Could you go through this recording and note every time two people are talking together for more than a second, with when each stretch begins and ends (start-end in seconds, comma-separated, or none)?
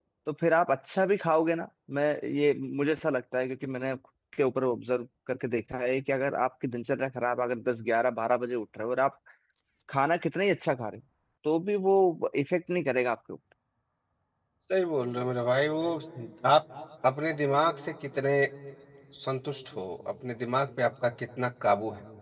none